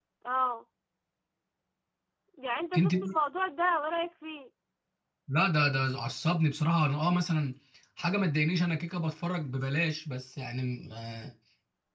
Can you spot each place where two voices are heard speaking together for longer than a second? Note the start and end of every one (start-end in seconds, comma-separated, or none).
none